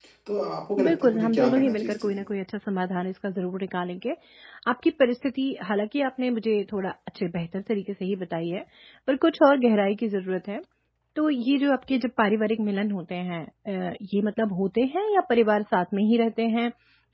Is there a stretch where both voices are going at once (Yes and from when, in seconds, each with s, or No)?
Yes, from 0.8 s